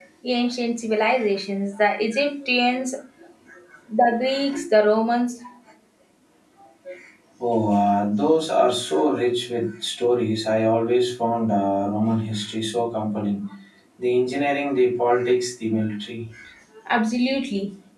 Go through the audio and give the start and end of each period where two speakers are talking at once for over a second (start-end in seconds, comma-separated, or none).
none